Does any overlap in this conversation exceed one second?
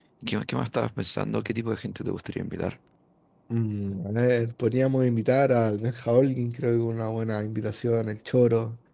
No

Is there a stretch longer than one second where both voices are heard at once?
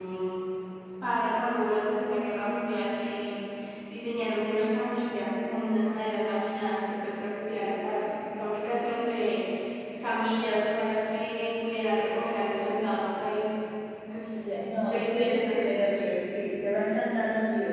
Yes, from 14.4 s

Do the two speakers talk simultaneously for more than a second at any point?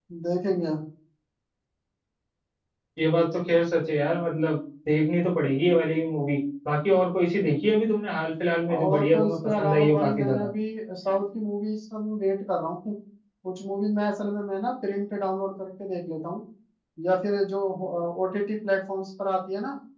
Yes, from 8.7 s

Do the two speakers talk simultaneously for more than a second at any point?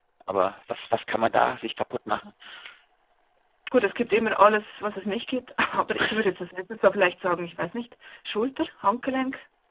No

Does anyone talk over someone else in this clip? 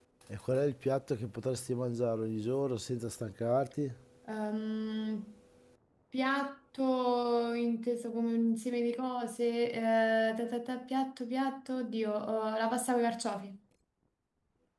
No

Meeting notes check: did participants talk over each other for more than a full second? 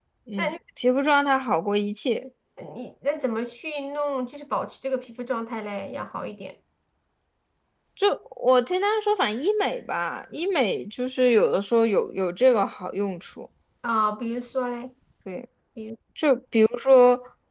No

